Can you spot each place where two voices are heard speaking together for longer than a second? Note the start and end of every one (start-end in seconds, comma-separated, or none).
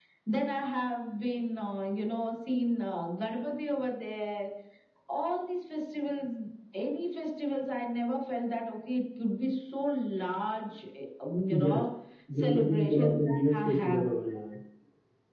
12.4-14.0